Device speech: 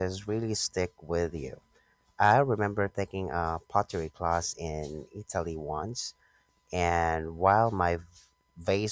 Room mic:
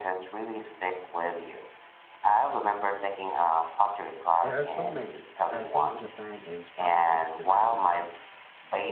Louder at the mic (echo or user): echo